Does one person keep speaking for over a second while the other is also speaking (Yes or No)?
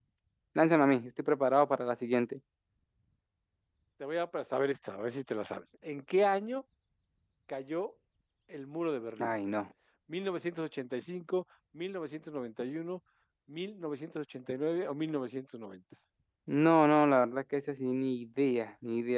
No